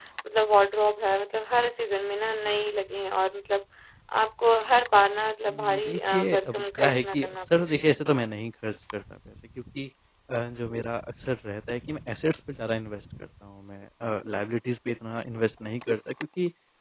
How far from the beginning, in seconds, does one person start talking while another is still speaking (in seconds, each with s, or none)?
5.5 s